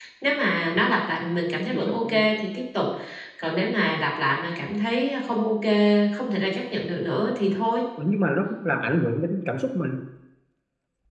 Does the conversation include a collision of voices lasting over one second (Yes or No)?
No